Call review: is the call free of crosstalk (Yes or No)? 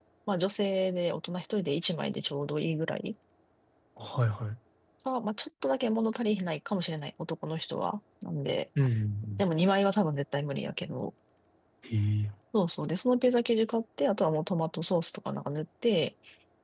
Yes